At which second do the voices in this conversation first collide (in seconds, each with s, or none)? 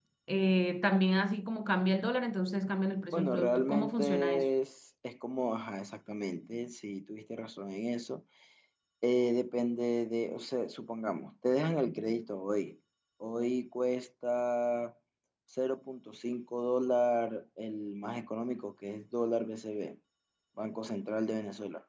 3.1 s